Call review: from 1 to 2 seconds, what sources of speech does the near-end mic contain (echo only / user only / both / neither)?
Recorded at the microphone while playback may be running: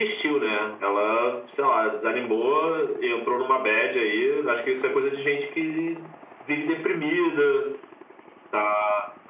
echo only